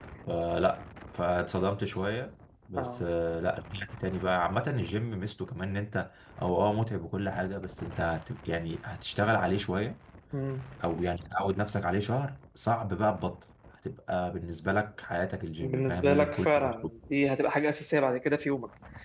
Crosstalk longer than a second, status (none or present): present